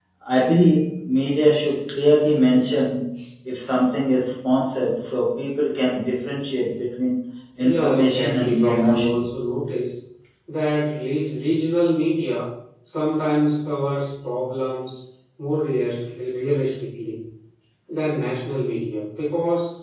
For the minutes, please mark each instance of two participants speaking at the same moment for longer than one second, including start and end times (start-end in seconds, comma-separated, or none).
7.6-9.3